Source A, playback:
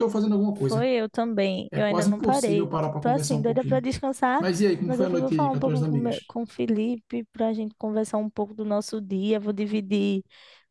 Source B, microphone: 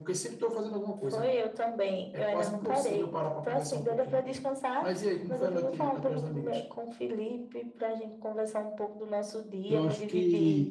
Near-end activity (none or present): present